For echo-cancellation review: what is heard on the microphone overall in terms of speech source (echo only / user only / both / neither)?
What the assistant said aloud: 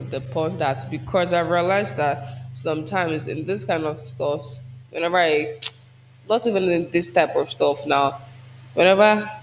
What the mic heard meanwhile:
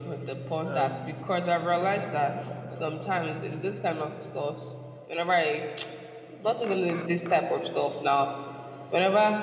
both